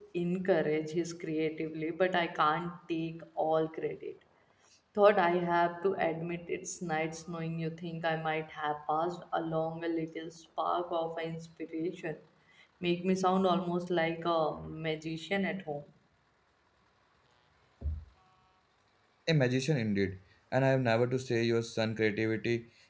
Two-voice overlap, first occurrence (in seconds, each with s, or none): none